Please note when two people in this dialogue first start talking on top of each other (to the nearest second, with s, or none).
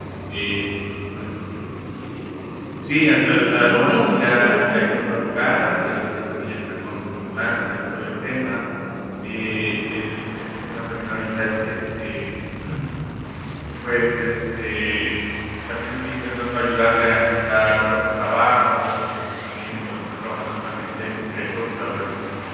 3 s